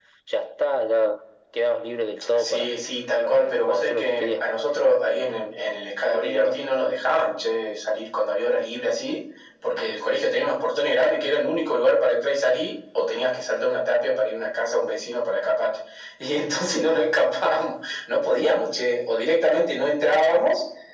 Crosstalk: present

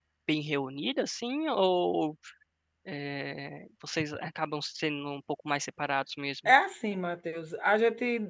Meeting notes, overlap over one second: none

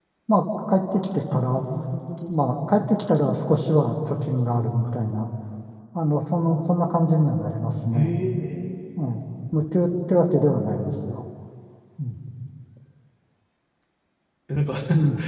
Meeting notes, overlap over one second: none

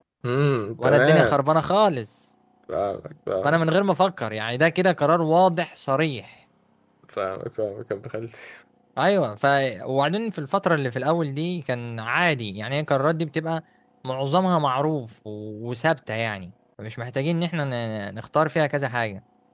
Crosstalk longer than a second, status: none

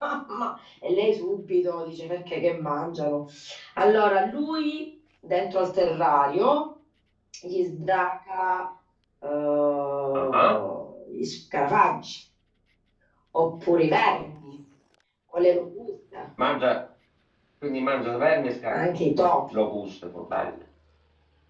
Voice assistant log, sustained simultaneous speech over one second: none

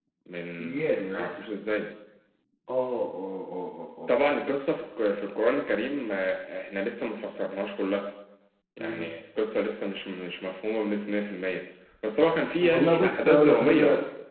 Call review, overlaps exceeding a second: present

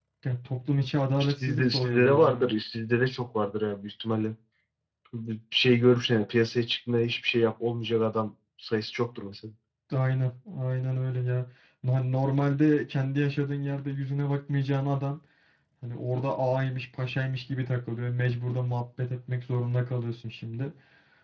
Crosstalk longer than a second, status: present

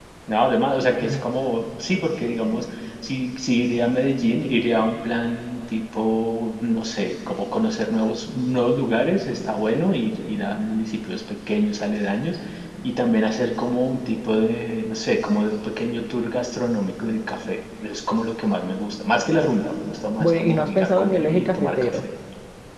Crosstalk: present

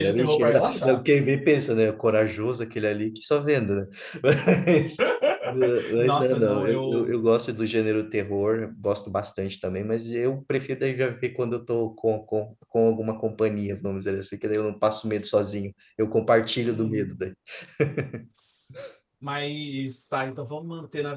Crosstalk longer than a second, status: present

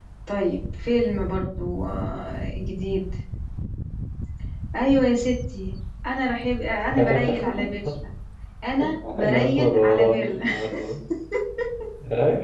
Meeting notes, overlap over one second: present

